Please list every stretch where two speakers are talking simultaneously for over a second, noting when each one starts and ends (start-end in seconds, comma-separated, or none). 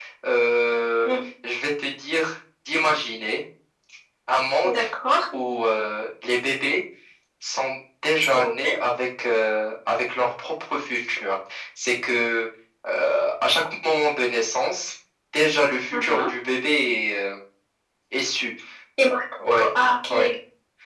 none